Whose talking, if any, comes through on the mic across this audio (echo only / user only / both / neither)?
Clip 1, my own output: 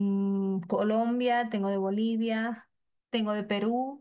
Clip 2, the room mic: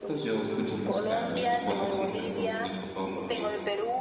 both